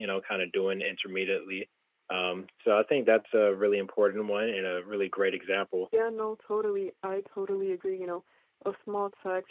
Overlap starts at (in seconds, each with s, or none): none